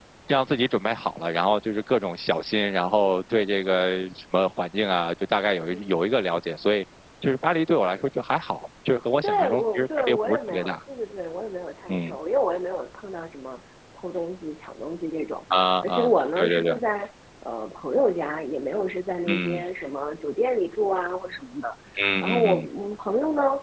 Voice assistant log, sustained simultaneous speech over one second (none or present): present